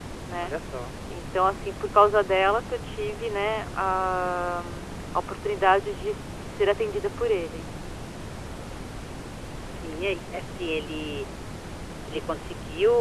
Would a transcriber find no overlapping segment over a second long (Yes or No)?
Yes